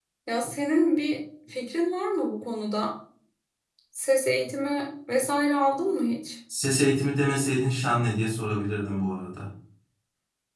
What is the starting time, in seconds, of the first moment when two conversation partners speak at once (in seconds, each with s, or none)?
none